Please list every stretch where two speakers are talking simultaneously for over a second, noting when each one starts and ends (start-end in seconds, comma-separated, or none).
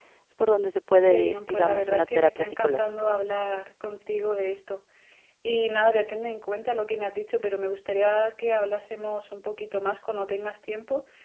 1.1-2.9